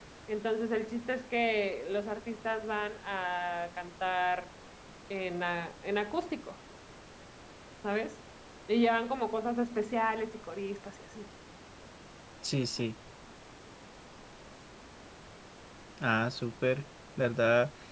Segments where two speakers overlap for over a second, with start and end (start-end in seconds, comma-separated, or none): none